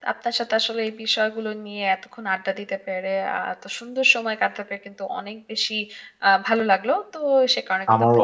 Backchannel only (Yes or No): No